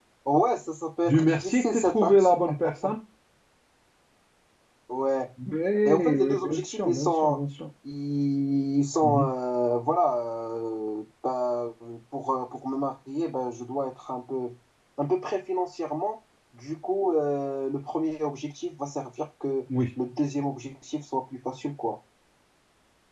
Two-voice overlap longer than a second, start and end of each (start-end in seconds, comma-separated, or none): 1.0-2.3, 5.8-7.4